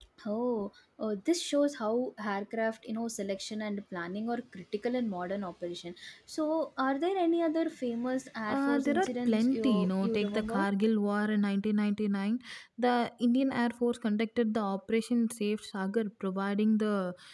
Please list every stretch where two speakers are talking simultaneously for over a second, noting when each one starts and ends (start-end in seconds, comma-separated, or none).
8.5-10.6